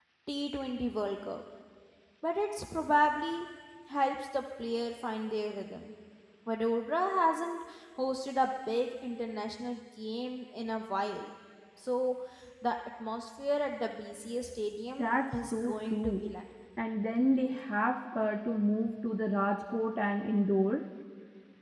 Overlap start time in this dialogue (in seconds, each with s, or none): 15.0 s